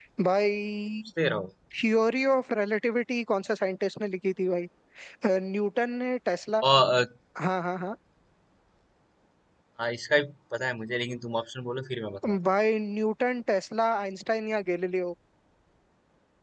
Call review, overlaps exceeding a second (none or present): none